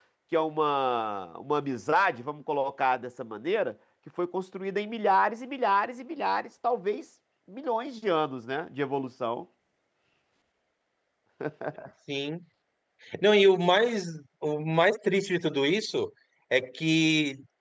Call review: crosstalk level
none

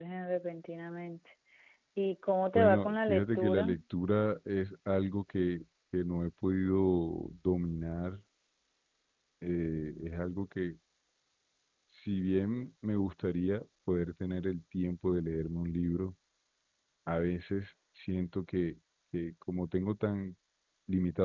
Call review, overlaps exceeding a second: present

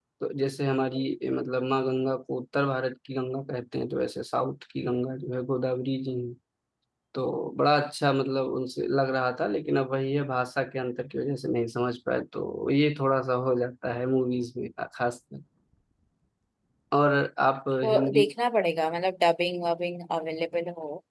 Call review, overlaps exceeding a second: none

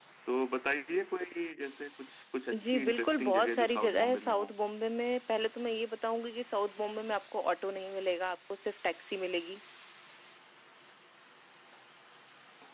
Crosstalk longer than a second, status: present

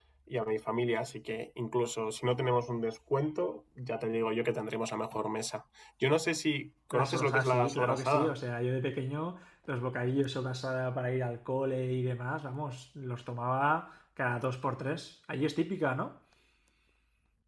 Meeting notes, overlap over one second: present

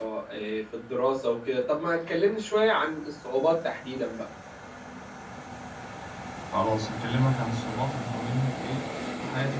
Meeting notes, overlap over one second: none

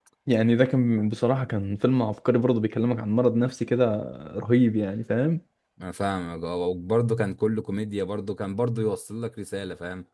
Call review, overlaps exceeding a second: none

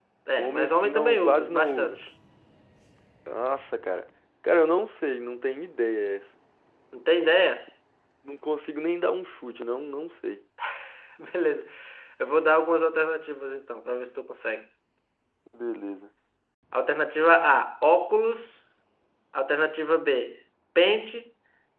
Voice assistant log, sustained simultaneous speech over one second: present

